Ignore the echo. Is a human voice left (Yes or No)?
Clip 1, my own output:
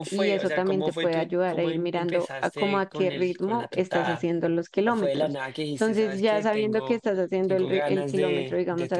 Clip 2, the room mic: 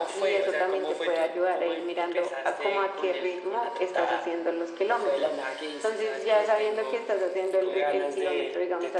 No